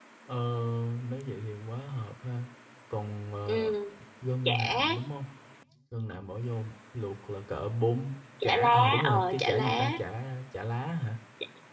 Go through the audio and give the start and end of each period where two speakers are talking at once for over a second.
8.4-9.9

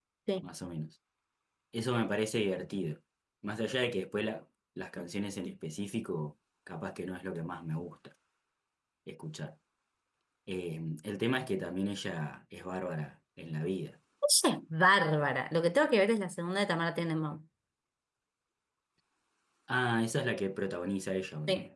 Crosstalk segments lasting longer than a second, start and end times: none

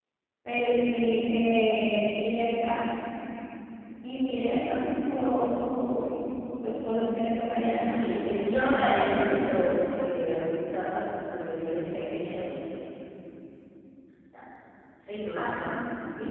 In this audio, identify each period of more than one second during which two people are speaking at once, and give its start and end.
7.8-9.3

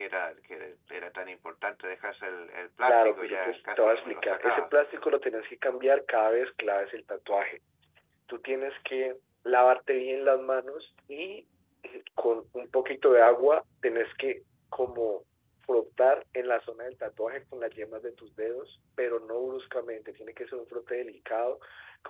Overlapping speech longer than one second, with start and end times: 2.9-4.7

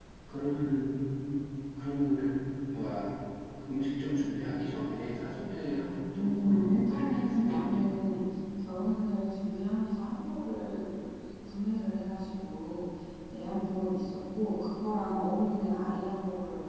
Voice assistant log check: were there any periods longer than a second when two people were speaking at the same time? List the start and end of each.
6.2-7.8

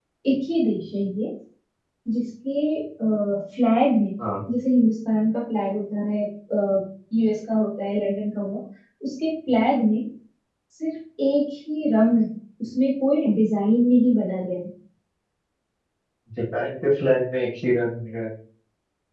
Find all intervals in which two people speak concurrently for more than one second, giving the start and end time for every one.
none

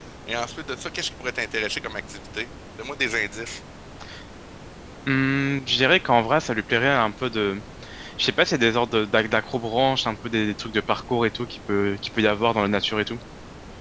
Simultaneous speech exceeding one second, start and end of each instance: none

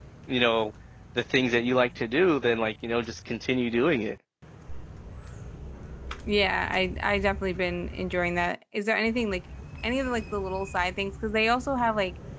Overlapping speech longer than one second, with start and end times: none

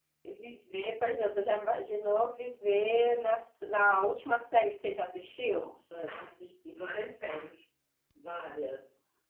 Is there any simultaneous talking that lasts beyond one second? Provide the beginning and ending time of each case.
none

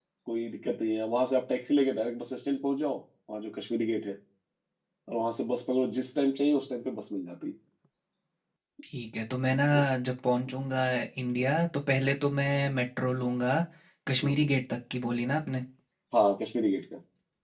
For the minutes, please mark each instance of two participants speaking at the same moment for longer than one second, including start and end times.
none

